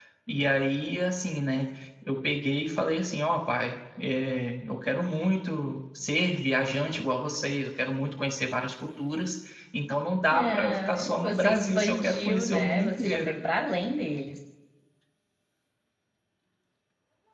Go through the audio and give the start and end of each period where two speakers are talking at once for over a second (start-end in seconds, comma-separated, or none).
10.3-13.3